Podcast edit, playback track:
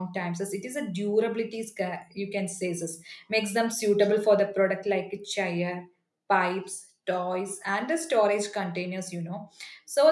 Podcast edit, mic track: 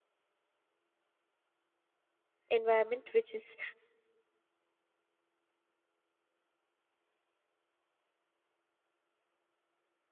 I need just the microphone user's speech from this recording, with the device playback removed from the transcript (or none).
environment which is